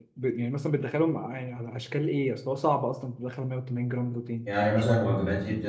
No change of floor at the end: No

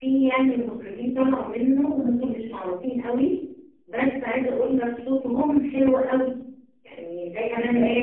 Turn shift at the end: Yes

